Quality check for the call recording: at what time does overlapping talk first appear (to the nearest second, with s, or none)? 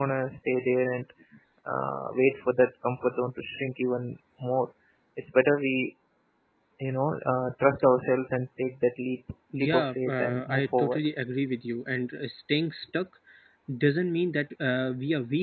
10 s